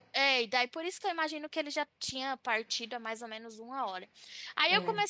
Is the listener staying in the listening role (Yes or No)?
Yes